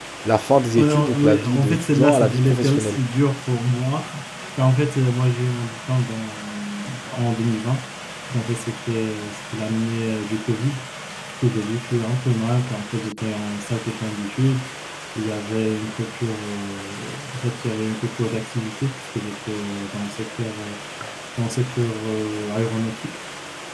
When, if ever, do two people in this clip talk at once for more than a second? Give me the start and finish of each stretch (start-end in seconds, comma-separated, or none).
0.8-3.0